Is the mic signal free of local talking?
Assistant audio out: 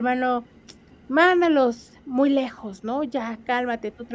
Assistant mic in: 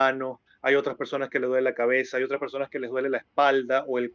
No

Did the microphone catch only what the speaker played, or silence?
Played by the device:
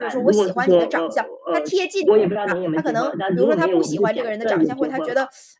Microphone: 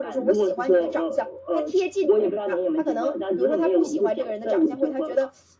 Yes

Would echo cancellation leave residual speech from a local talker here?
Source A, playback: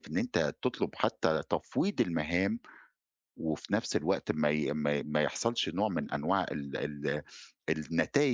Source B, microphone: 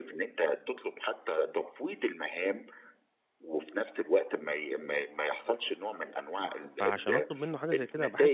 Yes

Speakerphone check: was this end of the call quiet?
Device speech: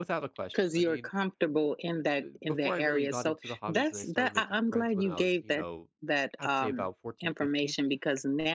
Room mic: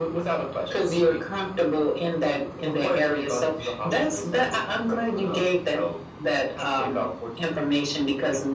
Yes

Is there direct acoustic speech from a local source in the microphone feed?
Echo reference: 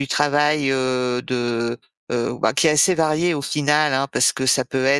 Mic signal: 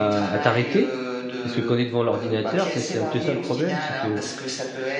Yes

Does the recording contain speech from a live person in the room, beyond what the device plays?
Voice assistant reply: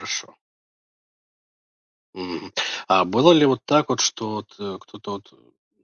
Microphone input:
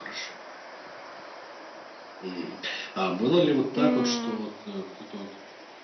Yes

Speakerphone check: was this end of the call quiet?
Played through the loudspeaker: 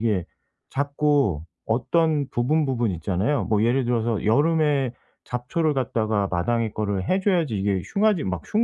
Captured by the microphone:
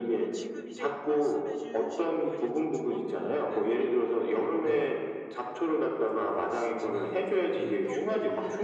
No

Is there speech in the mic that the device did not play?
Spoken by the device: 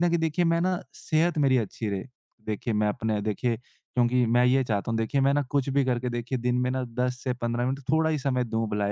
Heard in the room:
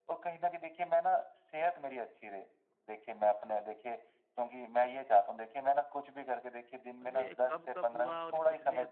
Yes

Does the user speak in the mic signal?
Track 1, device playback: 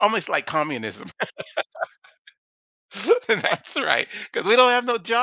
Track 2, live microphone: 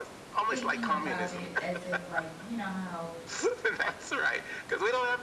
Yes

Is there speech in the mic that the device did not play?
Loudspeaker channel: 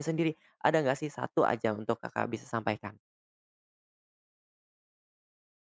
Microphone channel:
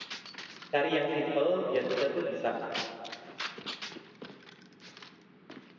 Yes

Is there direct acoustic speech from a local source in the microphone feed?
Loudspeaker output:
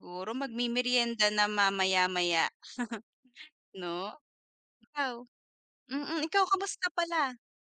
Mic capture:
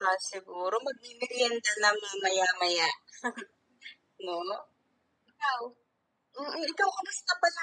No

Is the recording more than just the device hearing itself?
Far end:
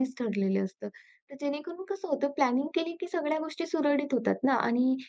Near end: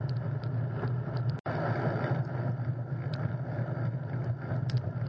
No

